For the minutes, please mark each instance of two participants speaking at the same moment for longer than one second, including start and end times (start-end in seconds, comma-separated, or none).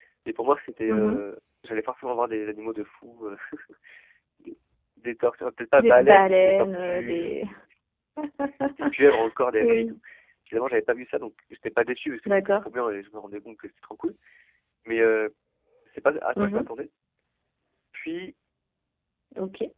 5.8-7.4